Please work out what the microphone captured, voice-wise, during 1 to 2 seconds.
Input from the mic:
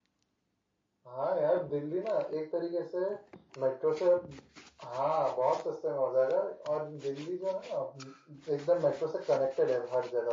echo only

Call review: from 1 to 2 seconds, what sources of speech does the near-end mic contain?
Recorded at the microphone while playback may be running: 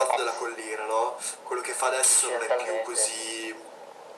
echo only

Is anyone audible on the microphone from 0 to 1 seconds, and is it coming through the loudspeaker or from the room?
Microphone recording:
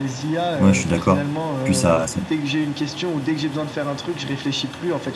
both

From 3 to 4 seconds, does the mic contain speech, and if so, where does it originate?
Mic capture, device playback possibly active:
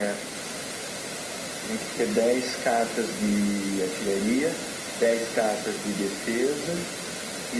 echo only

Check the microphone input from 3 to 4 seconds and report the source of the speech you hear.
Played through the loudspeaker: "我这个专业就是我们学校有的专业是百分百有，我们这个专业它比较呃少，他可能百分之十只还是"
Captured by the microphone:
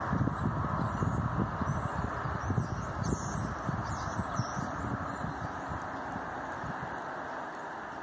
neither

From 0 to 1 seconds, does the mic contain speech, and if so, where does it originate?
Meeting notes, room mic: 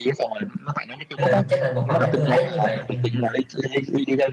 echo only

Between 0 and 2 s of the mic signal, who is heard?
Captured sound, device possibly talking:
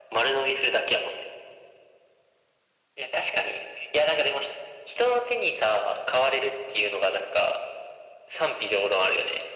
echo only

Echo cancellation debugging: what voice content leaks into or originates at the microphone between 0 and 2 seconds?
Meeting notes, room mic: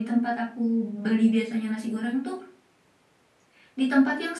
echo only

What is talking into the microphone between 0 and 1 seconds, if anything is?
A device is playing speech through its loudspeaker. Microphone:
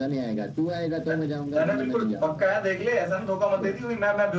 echo only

